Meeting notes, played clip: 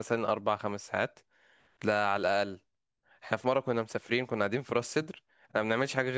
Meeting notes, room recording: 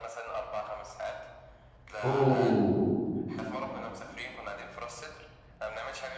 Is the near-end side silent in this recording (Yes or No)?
No